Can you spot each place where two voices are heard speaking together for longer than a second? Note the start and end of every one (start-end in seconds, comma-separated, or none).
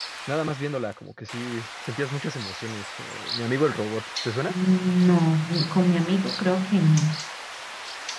none